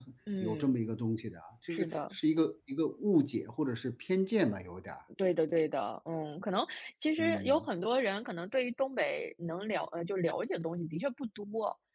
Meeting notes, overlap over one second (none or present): none